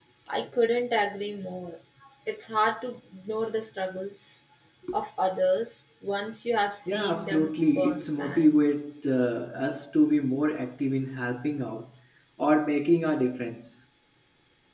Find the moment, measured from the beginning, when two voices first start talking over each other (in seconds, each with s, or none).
6.9 s